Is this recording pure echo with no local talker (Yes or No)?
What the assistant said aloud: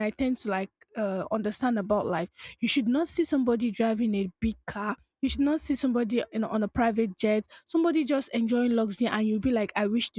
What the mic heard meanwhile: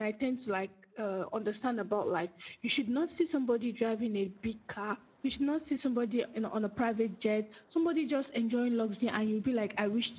Yes